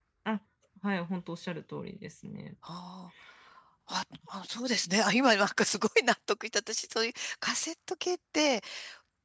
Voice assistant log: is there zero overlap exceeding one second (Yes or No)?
Yes